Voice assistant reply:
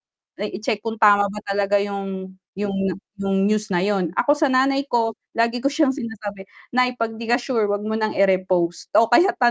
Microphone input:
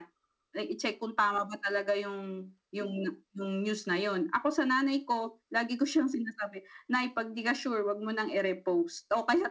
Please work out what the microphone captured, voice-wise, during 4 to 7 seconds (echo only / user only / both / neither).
echo only